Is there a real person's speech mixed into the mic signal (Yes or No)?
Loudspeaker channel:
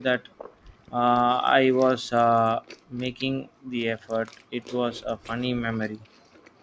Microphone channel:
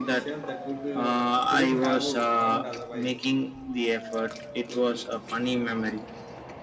Yes